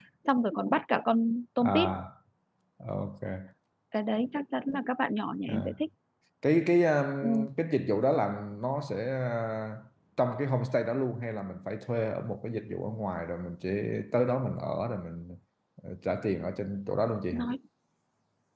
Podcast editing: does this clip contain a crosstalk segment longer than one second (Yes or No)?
No